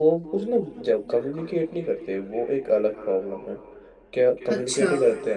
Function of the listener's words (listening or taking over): listening